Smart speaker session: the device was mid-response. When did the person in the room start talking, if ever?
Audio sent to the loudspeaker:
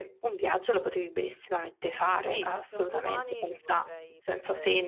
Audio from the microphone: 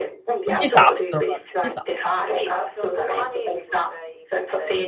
0.5 s

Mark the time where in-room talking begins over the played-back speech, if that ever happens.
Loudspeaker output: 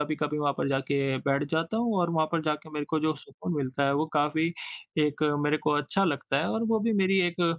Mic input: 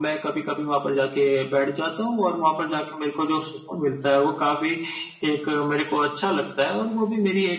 none

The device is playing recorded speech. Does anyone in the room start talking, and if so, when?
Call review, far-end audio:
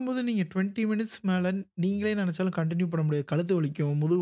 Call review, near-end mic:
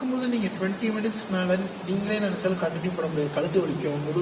none

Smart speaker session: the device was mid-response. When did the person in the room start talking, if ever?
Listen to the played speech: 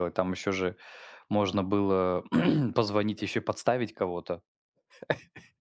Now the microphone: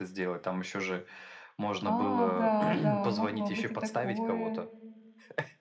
1.8 s

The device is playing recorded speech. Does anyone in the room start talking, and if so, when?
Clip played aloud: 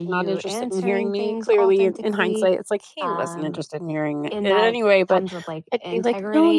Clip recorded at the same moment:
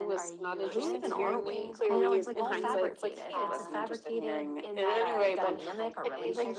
0.7 s

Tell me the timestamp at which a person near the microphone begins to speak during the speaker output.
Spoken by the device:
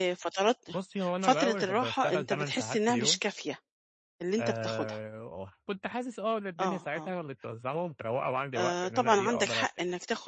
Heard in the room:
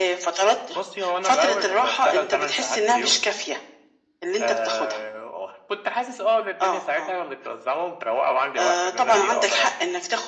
none

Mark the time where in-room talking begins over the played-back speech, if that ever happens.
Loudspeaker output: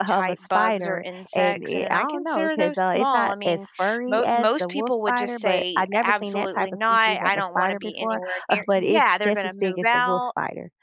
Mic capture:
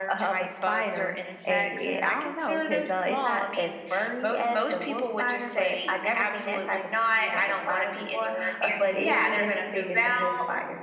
none

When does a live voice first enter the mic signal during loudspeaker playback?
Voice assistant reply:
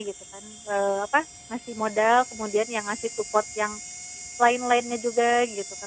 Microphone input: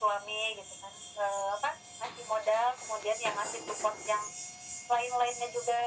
none

